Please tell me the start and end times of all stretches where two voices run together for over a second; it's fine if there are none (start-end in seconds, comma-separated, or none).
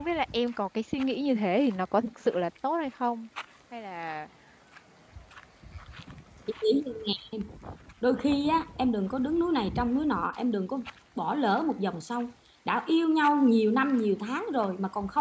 none